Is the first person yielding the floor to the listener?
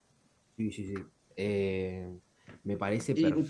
Yes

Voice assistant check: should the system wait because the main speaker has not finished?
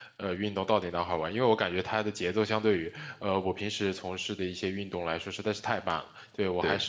Yes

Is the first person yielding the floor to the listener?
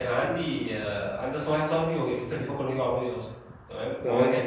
No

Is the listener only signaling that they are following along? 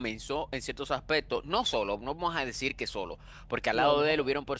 Yes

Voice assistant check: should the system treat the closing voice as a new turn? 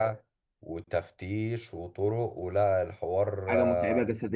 Yes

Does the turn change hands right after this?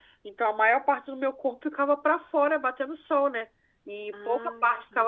No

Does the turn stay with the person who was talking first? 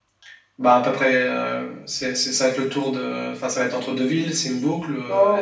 No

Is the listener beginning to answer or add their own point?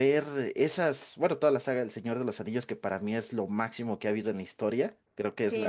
Yes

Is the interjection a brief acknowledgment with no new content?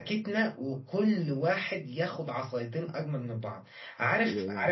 Yes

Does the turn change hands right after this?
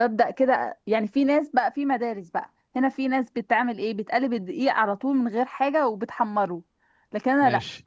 No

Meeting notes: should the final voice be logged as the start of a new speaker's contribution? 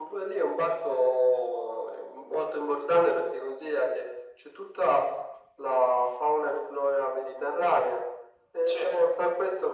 No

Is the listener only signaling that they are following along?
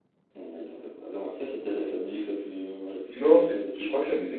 No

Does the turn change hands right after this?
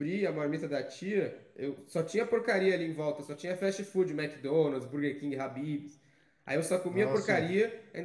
No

